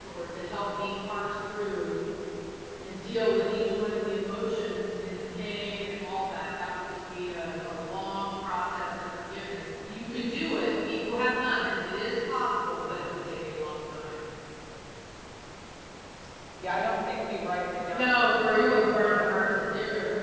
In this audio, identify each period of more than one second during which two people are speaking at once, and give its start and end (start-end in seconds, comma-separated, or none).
17.9-19.5